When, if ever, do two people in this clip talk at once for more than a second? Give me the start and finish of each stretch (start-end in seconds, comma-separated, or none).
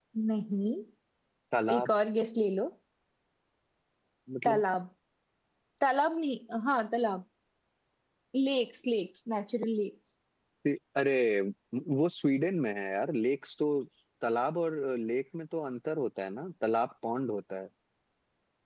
none